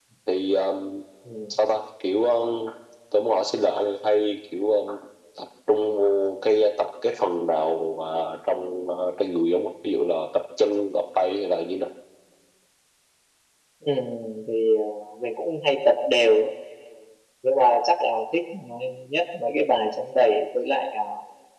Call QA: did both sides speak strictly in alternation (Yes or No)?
Yes